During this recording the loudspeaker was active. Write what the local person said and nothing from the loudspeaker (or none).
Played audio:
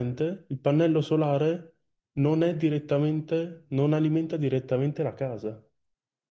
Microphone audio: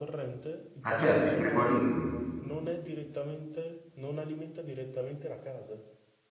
Ah, certo, i frigoriferi.